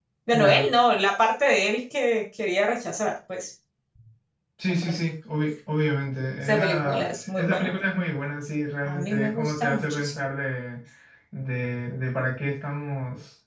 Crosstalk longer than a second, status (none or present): present